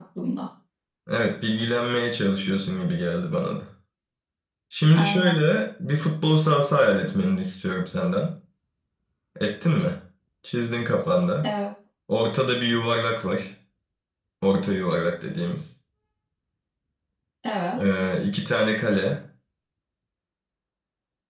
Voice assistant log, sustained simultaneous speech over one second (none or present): none